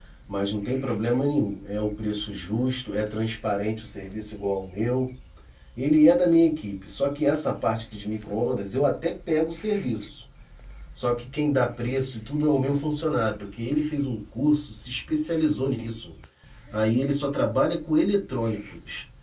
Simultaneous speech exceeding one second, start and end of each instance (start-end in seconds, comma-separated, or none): none